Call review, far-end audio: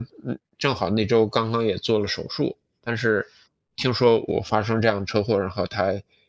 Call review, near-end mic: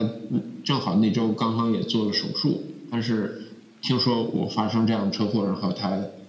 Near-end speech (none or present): none